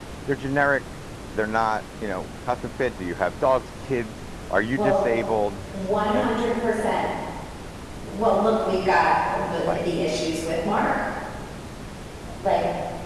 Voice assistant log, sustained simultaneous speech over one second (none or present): none